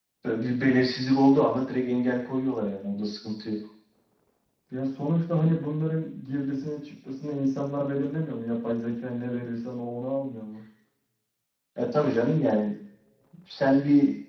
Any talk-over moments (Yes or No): No